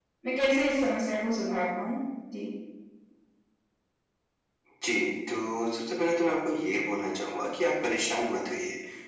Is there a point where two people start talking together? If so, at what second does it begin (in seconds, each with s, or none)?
none